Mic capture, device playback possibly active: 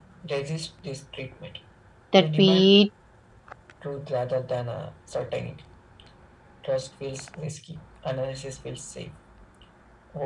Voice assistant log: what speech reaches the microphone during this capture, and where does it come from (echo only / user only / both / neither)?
both